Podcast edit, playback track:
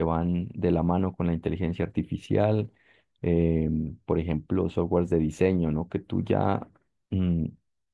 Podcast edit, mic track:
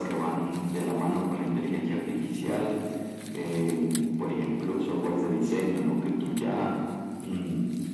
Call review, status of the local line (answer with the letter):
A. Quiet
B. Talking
A